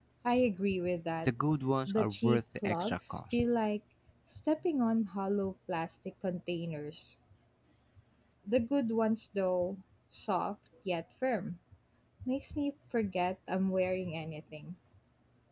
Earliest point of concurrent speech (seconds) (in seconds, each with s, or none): 1.9 s